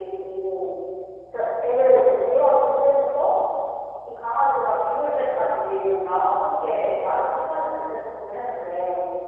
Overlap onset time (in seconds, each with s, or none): none